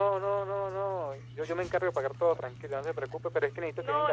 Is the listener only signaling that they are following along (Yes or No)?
No